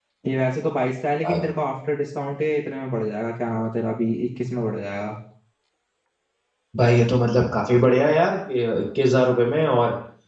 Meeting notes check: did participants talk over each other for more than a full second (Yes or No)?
No